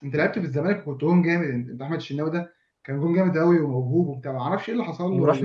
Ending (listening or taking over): taking over